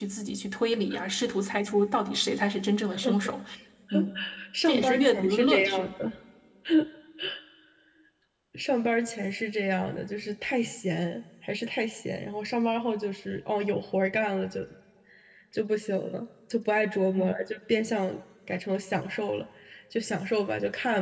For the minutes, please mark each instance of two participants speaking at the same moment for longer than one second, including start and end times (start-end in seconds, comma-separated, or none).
4.7-5.9